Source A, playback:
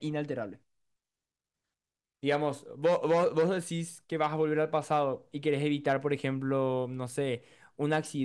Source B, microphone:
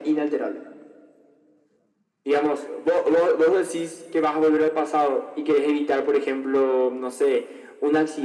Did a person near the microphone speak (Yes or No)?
No